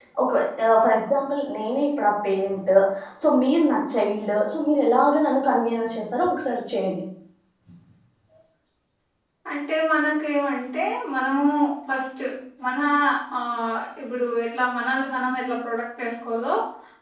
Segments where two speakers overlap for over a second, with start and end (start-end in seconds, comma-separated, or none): none